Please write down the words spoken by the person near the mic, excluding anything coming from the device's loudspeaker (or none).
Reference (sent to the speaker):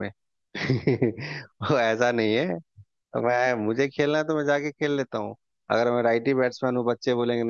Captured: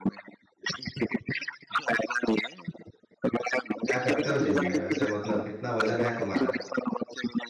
क्या करते हो जिम में वैसे मतलब कितना वजन है तुम्हारा